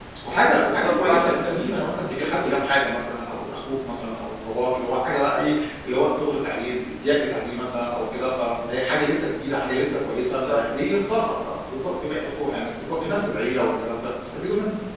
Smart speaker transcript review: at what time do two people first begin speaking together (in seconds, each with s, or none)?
0.7 s